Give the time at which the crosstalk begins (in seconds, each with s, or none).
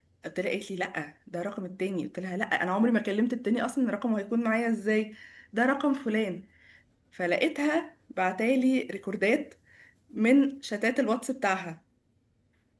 none